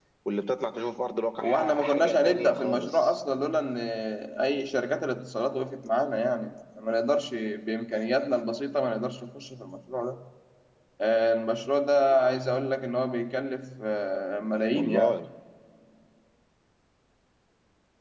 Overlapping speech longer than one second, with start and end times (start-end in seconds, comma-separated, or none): 1.4-3.1